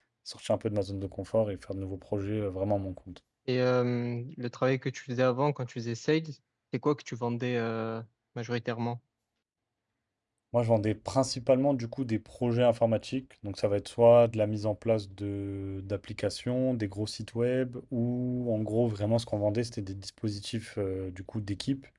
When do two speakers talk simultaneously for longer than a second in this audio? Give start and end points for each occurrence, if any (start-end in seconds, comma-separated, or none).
none